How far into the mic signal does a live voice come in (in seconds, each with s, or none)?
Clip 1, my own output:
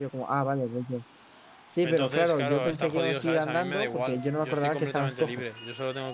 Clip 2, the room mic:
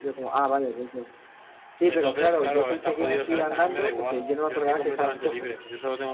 none